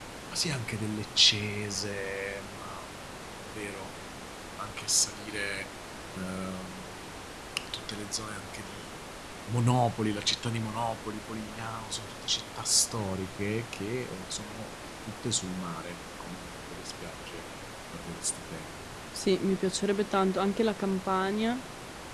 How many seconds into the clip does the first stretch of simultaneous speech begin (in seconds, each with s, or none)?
none